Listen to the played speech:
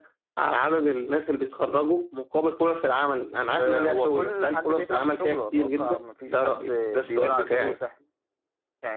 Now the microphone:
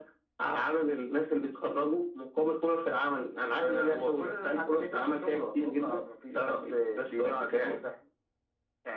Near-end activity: none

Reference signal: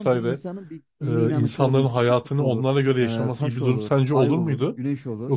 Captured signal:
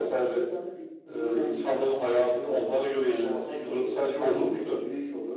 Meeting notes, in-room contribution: none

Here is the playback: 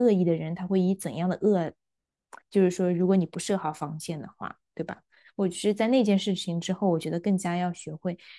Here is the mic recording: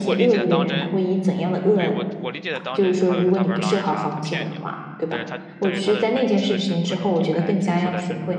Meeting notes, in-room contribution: present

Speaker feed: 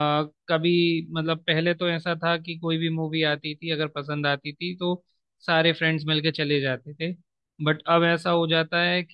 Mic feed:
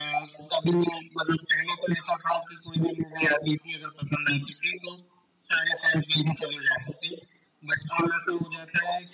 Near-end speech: none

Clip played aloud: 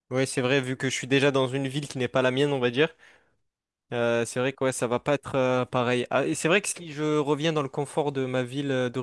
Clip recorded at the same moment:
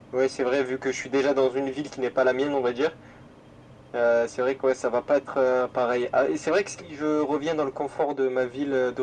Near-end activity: none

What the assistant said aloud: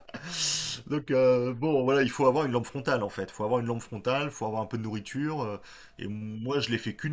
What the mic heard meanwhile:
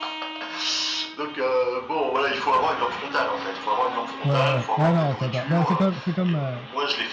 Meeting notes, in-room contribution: present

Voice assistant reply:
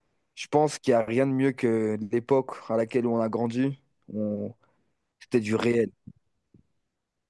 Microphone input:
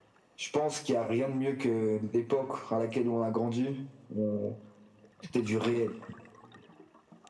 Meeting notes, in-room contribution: none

